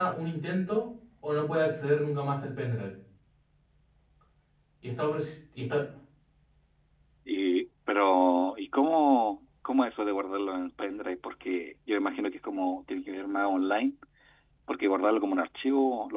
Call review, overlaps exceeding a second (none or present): none